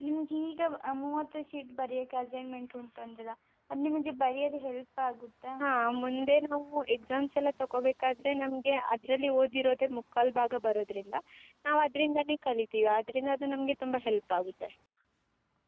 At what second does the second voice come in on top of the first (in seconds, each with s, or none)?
none